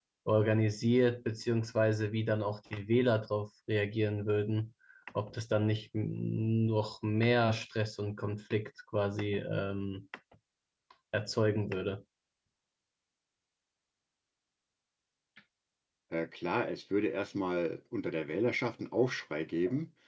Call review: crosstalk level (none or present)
none